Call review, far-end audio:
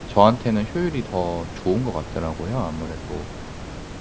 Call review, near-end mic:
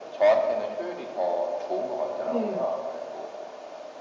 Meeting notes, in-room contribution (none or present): present